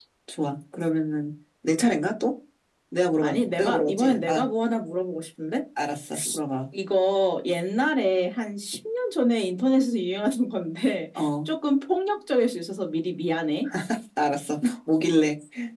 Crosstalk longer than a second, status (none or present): present